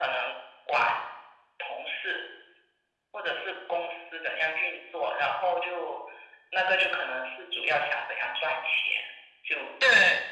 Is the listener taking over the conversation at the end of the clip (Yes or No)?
No